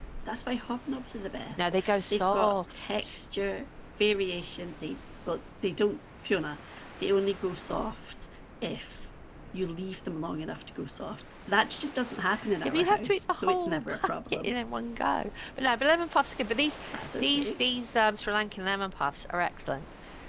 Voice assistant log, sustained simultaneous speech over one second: present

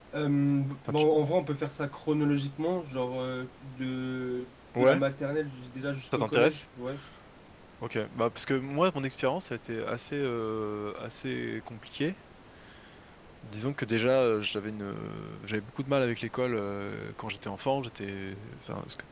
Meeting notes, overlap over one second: none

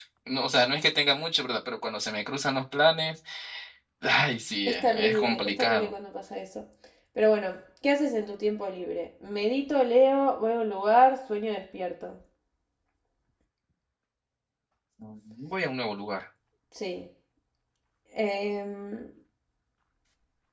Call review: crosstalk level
present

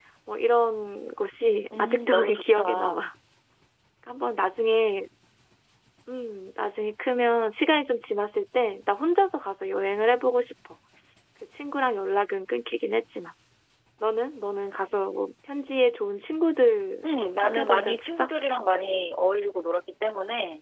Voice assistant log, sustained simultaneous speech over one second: present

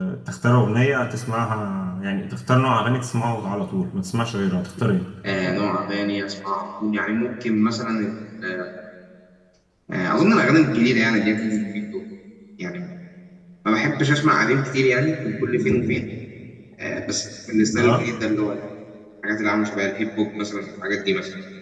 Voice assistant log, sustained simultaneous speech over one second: none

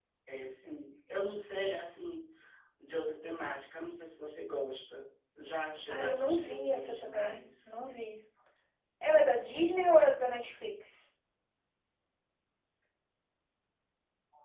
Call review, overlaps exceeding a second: present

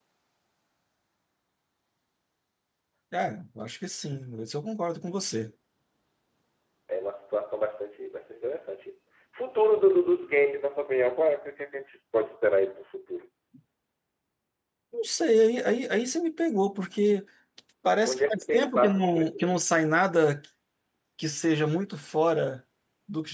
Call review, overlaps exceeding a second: present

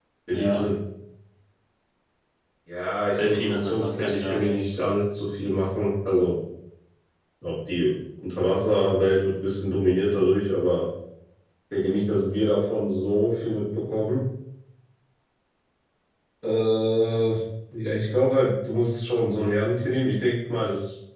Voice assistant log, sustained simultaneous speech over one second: present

